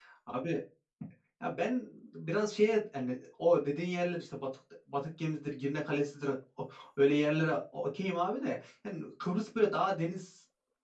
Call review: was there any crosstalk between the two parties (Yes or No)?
No